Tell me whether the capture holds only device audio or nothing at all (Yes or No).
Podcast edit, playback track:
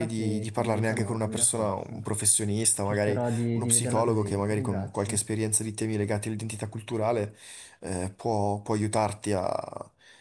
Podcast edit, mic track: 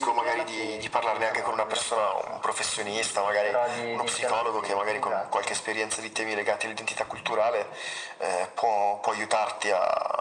Yes